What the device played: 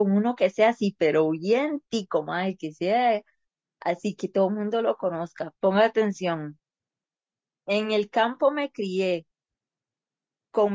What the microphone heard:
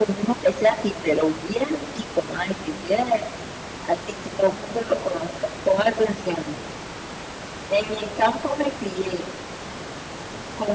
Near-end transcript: none

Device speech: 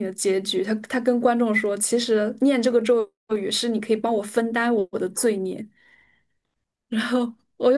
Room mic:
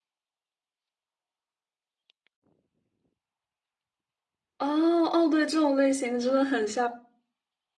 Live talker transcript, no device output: 哦哦，对，这种类型的真的很像。

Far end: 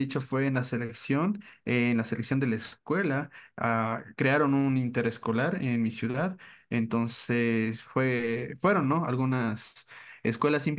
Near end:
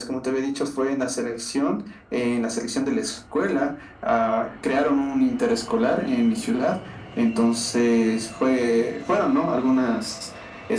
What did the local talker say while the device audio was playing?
none

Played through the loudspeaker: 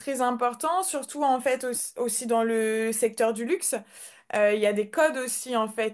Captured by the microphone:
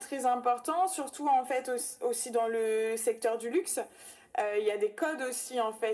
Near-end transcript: none

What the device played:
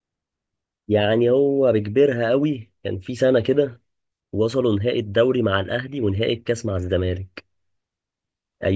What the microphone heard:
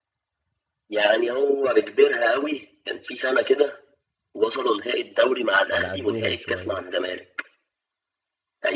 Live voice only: على قدهم شوية

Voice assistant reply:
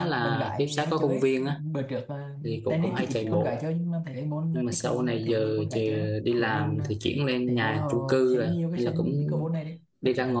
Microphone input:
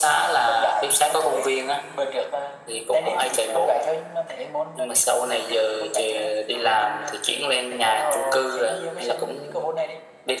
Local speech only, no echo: none

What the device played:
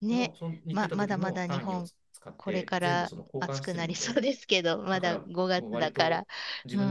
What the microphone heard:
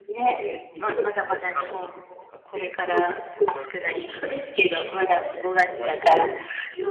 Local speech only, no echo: で、

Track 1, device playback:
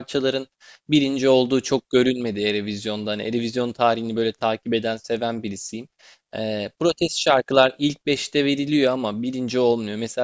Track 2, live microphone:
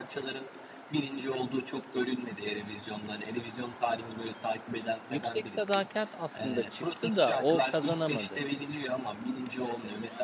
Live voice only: Yüksek Sadakat aslında çıktı da o kazanamadı.

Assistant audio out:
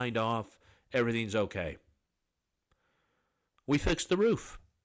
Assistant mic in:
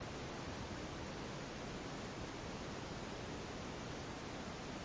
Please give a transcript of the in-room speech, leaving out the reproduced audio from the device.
none

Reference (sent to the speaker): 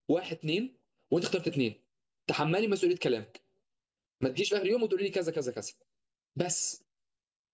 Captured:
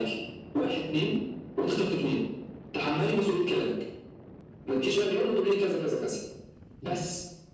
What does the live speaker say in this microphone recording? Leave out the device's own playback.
none

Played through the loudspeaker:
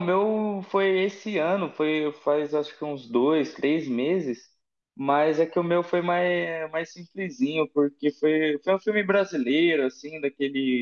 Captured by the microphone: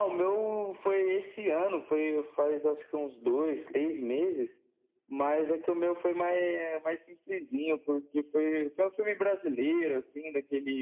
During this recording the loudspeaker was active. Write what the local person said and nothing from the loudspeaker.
none

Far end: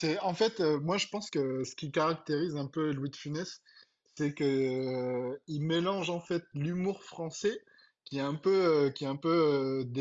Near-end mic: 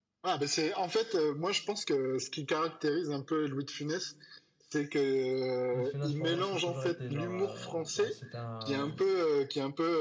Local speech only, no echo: Louis de Funès, pour moi, ça a toujours été genre, euh, ben, c'était un,

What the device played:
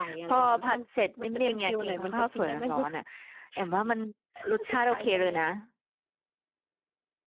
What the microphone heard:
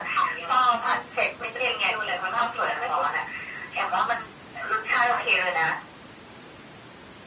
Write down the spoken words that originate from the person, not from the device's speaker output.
none

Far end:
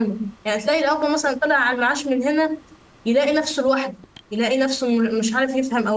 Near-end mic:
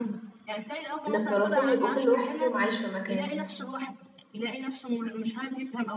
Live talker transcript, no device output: إن الطرفين يبقوا كل واحد فيهم عايش في مكان

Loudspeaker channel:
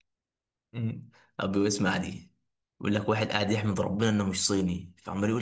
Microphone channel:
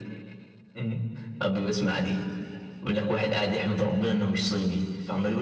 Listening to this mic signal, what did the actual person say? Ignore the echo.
none

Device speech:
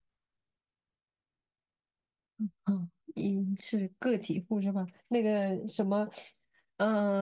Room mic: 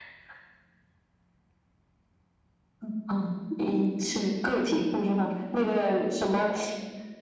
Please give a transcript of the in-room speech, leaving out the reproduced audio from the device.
none

